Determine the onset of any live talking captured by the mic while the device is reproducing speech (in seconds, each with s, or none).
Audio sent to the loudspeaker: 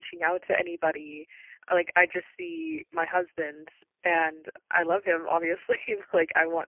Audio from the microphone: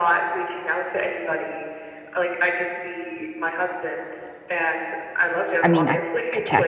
5.6 s